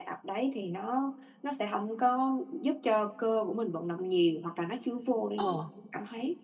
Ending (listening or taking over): listening